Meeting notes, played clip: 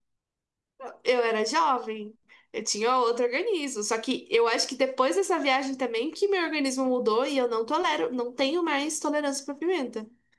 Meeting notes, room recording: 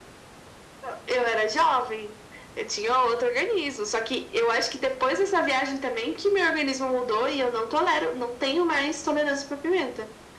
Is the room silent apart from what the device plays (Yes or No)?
Yes